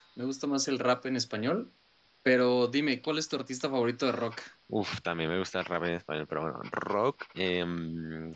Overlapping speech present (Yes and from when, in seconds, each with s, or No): No